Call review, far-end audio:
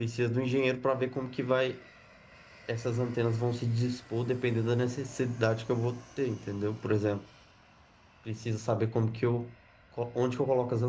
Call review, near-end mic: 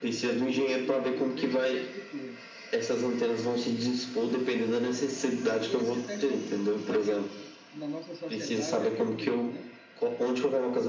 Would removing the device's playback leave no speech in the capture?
No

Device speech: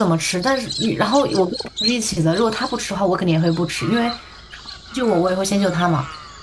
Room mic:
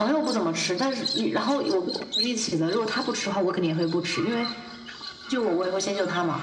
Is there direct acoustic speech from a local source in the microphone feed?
No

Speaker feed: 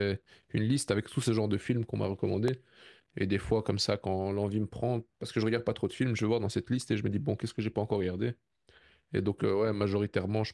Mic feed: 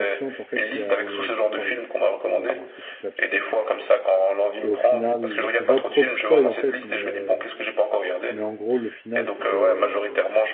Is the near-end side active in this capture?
Yes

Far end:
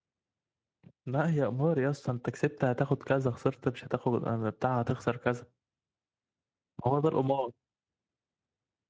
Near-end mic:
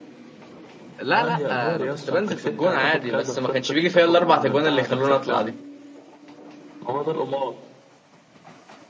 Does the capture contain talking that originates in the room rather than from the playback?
Yes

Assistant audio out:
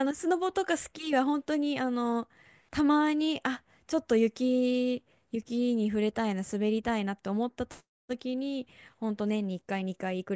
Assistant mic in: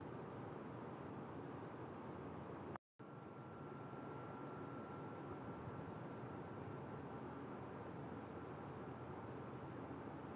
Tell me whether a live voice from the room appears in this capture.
No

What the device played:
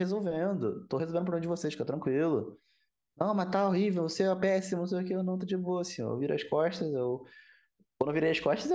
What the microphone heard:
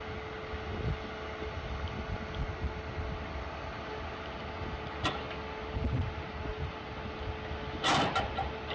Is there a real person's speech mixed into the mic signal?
No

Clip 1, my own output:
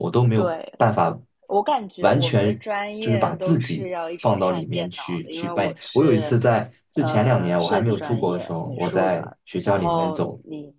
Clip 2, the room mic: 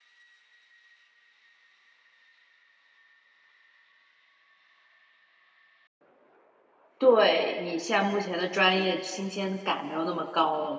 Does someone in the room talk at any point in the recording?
Yes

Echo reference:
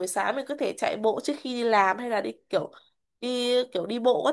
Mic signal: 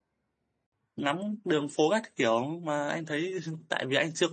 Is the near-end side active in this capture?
Yes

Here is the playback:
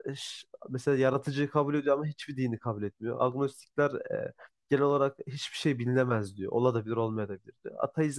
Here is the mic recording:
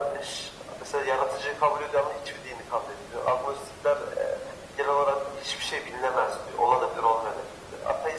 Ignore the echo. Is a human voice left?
No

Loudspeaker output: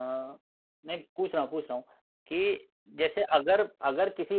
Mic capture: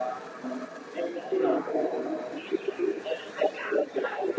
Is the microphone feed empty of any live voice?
Yes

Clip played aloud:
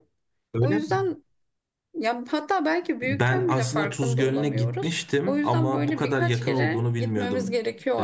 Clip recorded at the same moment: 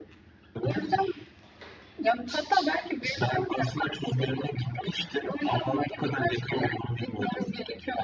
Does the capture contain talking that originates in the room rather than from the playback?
No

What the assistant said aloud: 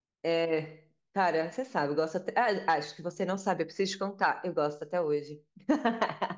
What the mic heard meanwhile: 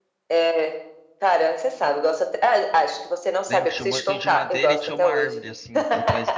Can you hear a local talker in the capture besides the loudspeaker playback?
Yes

